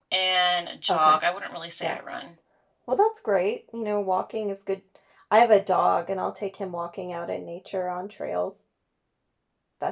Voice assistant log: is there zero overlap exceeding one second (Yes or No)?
Yes